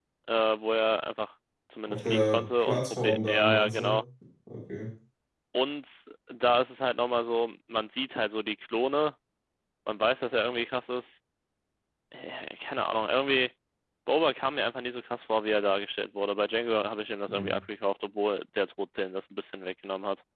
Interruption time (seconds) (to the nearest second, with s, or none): 2 s